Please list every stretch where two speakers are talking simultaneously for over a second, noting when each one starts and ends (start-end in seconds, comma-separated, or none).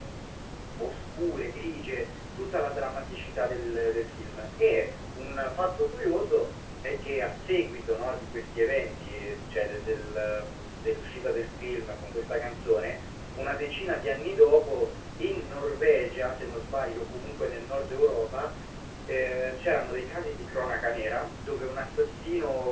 none